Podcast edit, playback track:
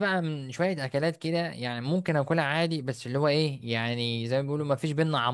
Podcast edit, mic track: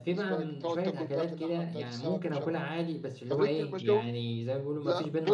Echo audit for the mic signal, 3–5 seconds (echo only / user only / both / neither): both